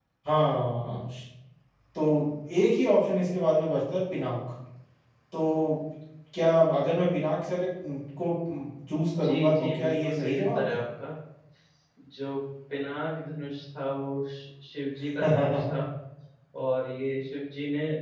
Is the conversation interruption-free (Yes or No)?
No